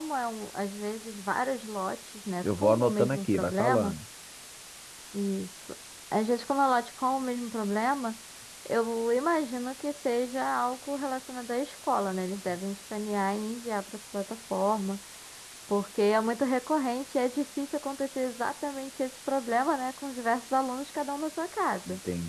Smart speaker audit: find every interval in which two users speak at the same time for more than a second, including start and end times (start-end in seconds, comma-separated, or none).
2.4-3.9